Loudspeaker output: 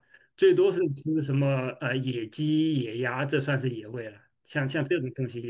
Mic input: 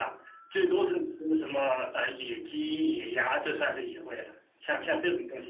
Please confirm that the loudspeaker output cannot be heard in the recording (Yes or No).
No